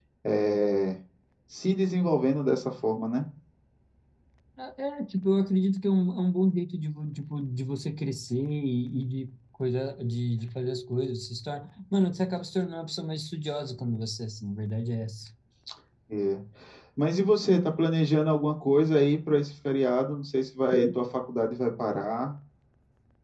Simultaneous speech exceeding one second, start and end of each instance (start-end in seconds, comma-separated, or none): none